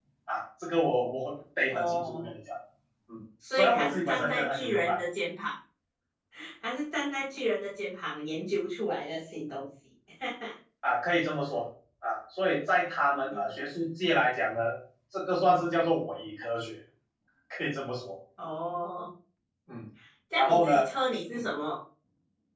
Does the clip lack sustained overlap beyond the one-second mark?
No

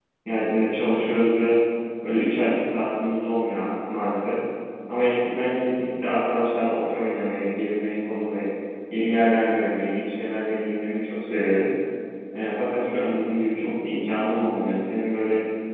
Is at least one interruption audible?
No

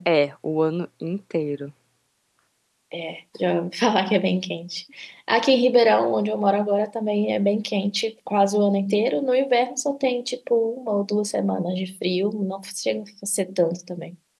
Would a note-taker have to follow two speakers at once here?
No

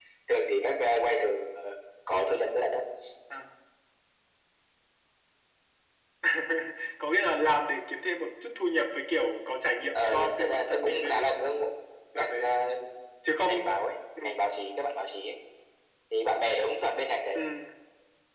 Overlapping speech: Yes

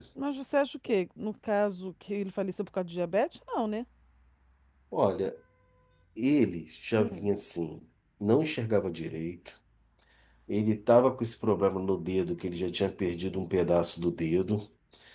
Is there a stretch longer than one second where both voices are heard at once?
No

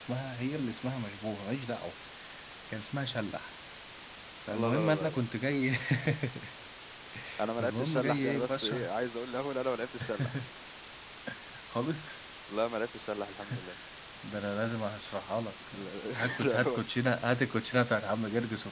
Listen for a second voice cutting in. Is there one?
Yes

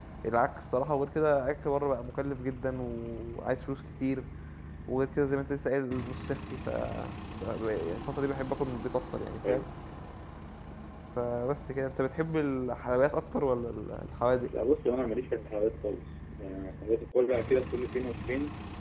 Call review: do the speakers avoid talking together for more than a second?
Yes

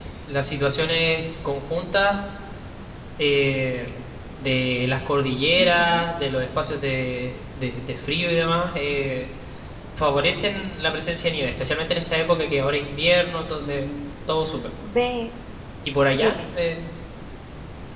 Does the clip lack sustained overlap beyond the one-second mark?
Yes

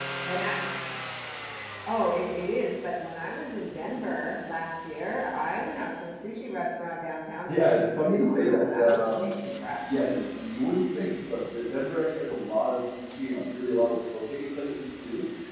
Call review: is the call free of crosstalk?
No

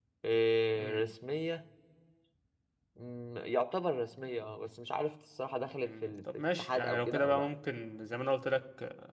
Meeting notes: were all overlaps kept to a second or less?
No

